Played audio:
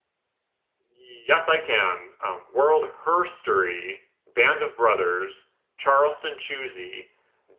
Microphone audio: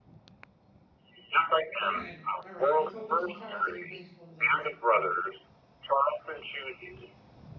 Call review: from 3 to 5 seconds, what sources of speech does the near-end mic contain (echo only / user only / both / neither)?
both